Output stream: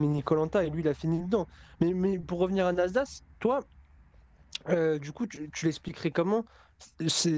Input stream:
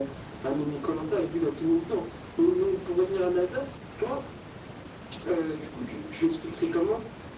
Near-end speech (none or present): none